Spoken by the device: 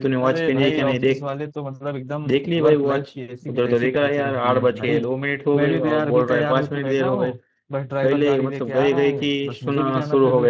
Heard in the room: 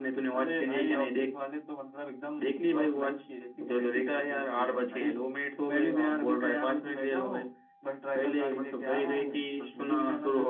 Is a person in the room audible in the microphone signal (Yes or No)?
No